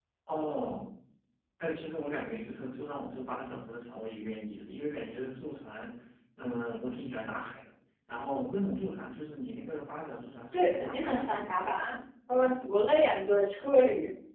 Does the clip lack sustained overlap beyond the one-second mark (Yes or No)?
No